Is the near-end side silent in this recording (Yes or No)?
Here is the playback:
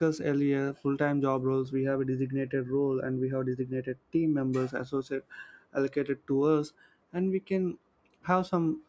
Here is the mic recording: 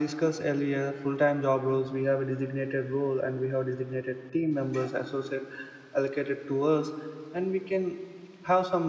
Yes